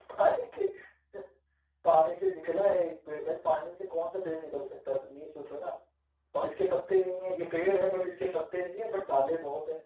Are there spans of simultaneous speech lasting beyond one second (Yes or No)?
No